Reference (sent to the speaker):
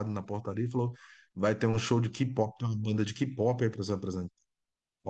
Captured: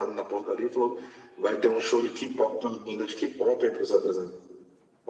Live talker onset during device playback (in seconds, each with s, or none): none